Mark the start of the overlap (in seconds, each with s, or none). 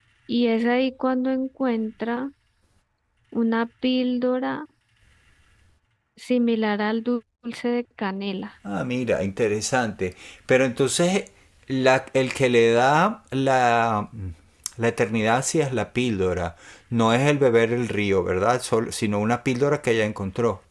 none